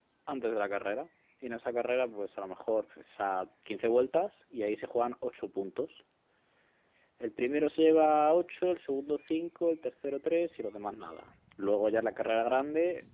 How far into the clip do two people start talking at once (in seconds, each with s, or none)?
none